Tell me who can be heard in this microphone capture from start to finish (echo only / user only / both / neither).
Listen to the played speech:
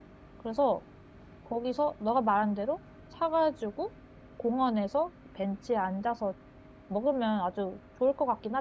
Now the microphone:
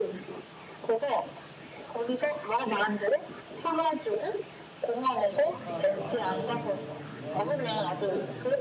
both